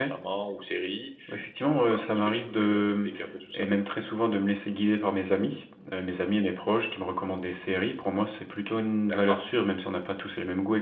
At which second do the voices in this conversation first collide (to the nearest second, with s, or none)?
2 s